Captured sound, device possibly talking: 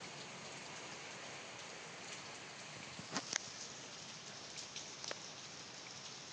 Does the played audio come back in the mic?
No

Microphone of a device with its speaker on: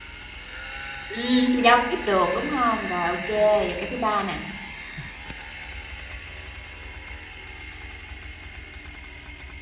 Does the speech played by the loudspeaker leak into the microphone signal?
No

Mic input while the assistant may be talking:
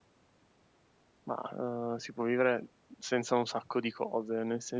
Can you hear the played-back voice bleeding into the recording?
No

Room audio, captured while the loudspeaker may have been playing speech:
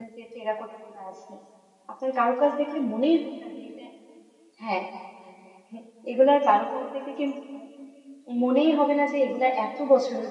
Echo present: No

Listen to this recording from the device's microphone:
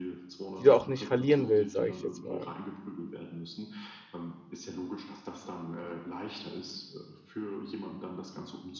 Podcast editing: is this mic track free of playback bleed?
No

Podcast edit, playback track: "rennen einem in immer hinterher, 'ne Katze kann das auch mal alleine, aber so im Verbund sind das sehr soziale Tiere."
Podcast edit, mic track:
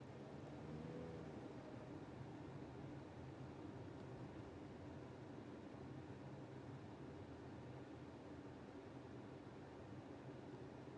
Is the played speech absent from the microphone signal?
Yes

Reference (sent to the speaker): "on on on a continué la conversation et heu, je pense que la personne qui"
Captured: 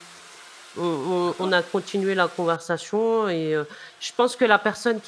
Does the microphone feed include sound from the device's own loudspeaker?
Yes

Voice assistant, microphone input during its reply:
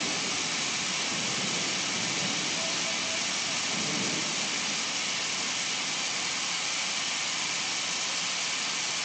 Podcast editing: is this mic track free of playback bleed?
Yes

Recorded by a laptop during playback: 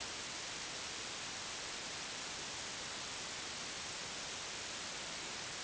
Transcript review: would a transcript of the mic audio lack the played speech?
Yes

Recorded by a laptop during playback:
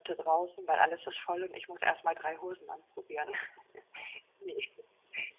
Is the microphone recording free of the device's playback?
Yes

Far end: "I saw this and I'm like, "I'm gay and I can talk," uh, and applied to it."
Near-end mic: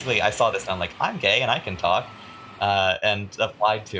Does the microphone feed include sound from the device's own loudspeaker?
Yes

